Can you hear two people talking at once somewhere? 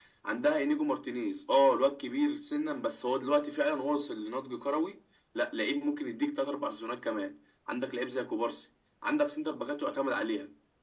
No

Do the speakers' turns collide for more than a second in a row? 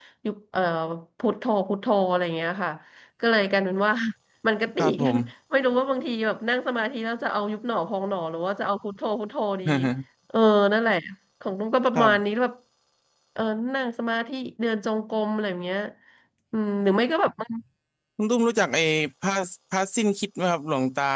No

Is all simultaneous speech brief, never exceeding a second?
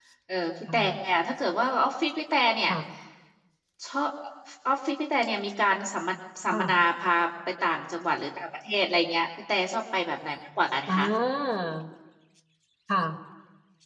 Yes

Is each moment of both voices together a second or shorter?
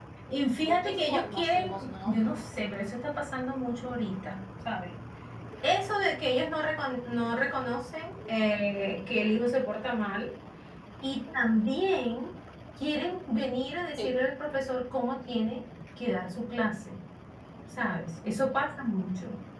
No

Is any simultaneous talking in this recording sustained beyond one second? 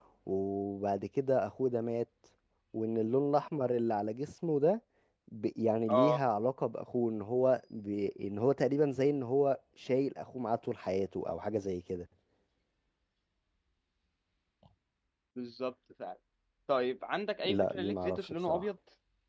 Yes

